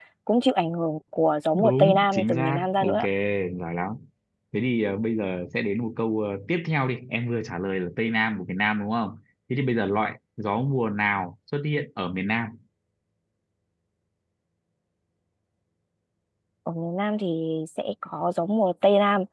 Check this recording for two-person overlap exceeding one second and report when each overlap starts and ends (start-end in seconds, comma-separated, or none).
1.5-3.0